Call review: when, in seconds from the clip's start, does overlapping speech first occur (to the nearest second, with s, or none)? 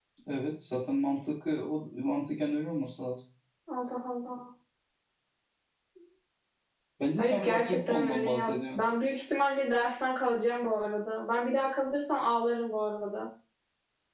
7 s